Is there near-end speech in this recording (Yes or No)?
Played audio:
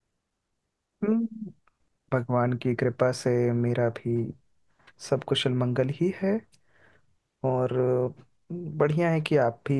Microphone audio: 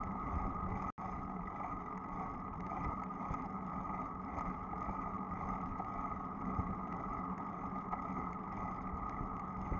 No